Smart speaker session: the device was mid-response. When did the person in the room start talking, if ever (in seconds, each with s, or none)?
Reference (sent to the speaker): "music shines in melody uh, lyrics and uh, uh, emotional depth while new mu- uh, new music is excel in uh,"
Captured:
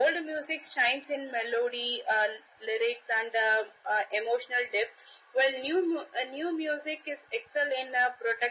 none